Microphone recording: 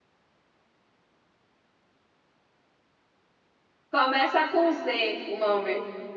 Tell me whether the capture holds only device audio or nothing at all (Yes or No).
No